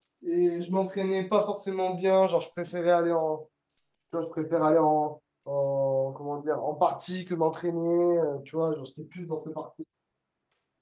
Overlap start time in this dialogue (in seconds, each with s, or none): none